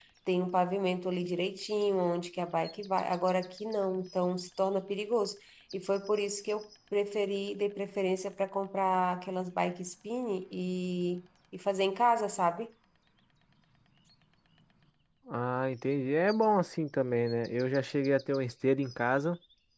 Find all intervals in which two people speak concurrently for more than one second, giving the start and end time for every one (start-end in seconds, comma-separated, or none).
none